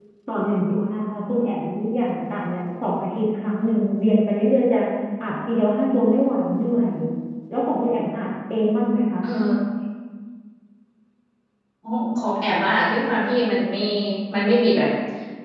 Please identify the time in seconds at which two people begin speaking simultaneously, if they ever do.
none

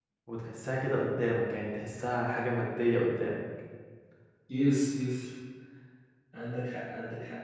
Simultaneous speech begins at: none

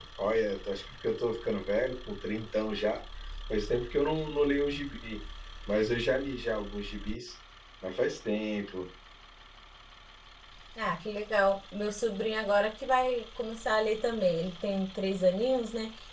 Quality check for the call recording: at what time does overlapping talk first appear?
none

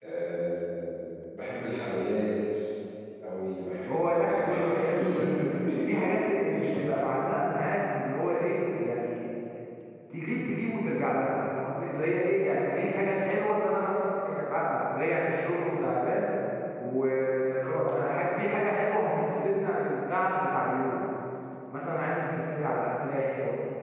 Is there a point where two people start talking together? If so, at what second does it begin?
3.9 s

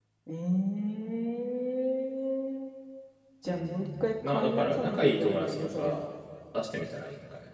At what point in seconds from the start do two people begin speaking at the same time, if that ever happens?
3.4 s

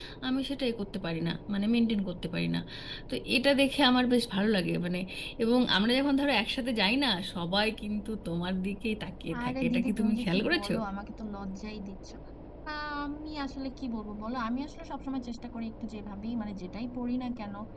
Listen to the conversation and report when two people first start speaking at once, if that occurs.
9.3 s

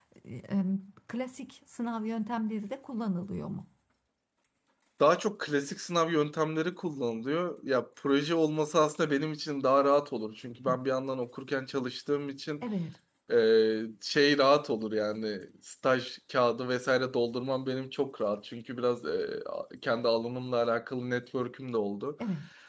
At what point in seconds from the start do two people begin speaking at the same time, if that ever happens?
none

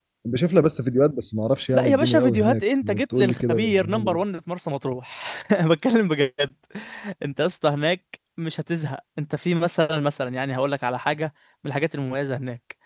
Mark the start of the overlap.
1.7 s

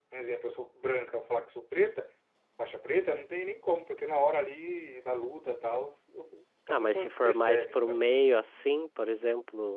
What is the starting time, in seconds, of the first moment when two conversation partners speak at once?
6.7 s

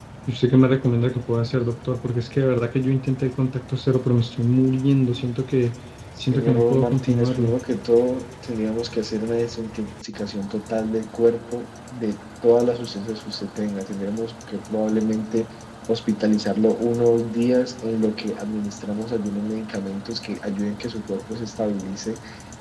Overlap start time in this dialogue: 6.2 s

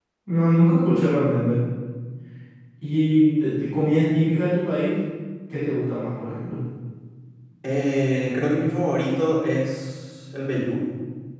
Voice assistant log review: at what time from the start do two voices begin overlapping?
none

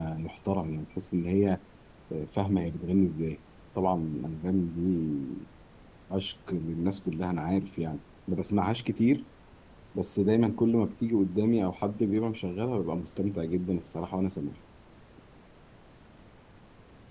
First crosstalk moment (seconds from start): none

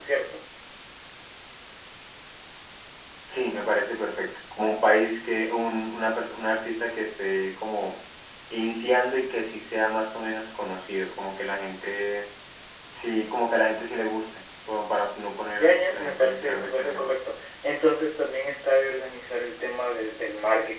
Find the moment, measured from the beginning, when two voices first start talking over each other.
15.6 s

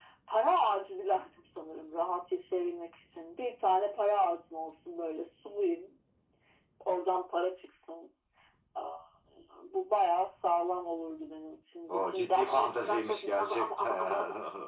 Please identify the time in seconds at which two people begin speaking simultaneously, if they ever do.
11.9 s

